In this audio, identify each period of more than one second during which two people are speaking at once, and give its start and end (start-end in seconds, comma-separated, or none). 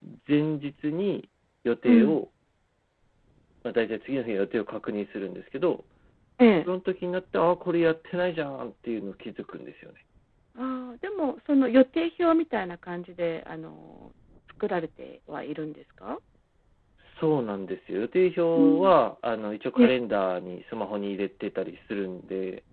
none